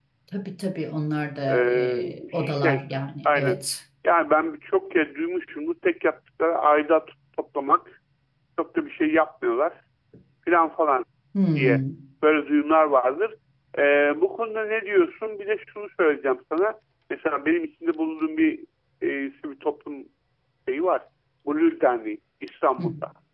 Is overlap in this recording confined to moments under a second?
No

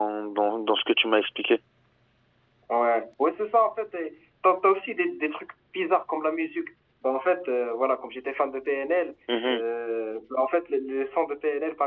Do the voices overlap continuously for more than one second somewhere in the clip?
No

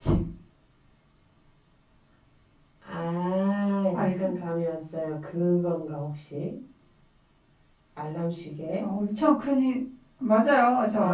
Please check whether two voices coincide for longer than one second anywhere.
No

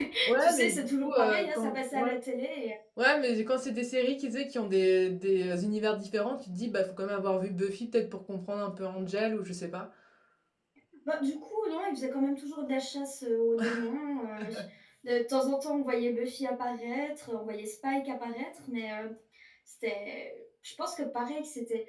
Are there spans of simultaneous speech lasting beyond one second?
Yes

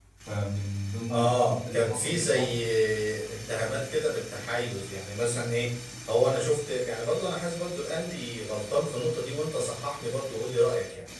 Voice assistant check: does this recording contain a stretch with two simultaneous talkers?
Yes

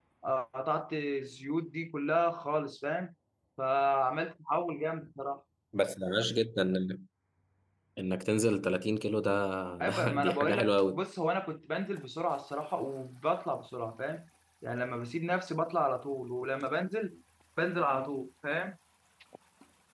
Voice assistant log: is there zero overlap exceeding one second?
No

